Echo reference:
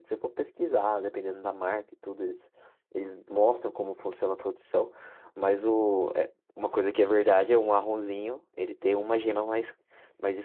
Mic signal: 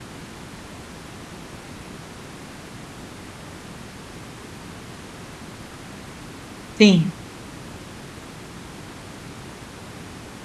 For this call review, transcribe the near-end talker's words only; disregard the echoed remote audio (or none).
sim,